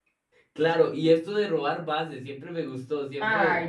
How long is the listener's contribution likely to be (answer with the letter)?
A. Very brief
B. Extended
B